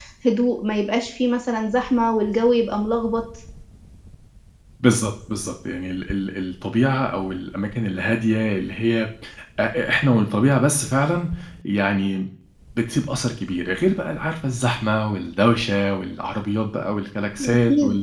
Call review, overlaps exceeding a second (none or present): none